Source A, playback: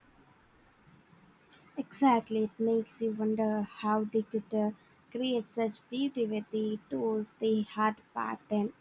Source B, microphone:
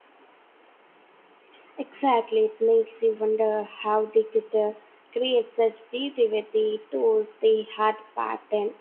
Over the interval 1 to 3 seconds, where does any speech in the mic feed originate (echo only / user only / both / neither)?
echo only